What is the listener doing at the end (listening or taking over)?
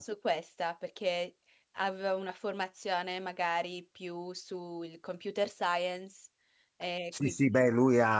taking over